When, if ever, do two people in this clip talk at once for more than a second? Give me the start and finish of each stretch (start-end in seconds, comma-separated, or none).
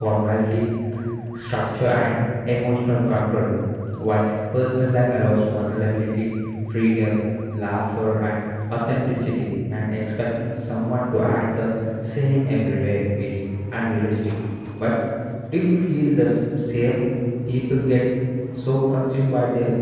none